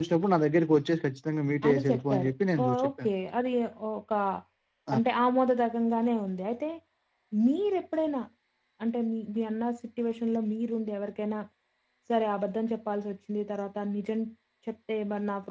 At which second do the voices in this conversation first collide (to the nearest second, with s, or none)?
2 s